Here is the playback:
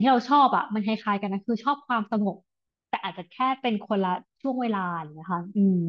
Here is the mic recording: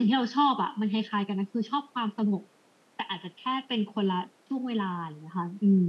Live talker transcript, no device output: none

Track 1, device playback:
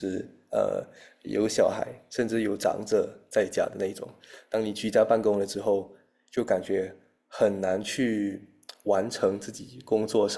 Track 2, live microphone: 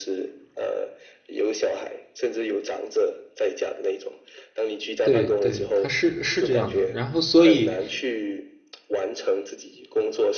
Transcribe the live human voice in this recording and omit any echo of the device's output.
对对，他是是这样的。然后所以

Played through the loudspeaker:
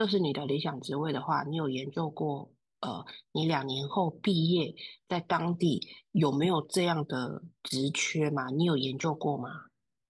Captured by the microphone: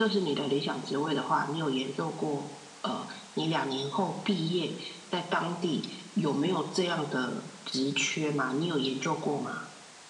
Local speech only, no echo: none

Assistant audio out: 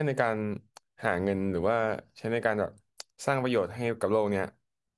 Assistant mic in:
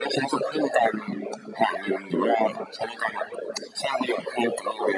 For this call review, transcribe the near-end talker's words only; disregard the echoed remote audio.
none

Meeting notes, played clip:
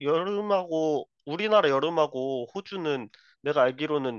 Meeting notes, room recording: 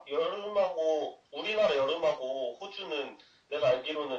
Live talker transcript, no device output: none

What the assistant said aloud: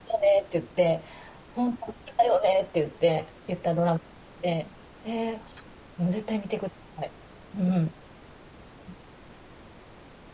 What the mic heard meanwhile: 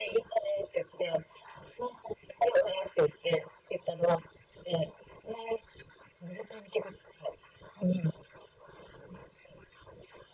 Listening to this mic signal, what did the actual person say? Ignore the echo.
none

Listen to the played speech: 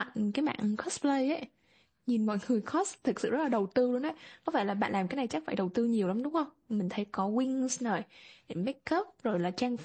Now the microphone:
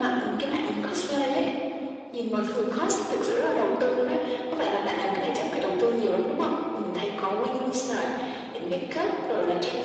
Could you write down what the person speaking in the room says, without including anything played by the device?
none

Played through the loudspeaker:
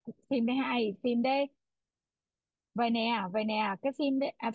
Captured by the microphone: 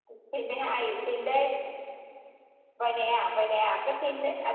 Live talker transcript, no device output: none

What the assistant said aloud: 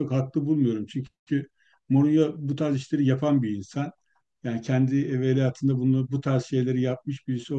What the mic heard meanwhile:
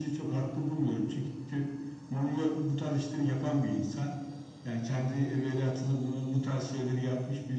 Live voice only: none

